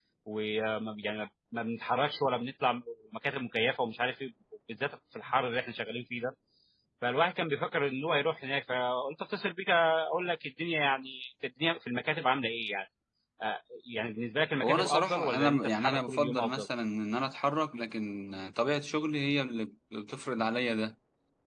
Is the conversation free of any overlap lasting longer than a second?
No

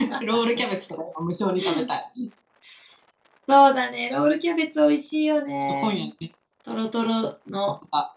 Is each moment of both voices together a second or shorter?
Yes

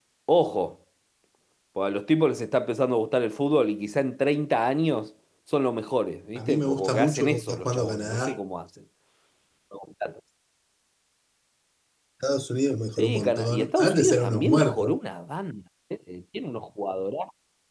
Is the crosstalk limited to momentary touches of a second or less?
No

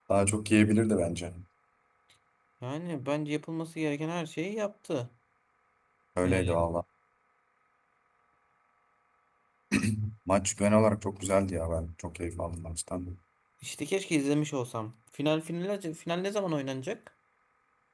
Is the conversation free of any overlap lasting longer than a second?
Yes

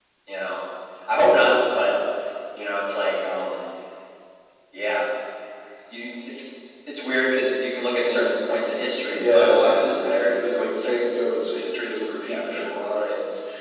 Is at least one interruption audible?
Yes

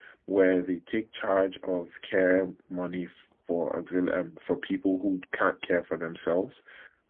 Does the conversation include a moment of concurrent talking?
No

